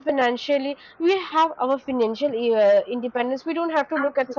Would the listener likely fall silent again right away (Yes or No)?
Yes